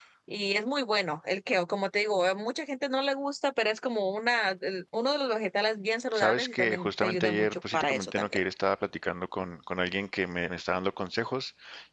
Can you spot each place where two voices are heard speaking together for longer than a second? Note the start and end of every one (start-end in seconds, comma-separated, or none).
6.2-8.4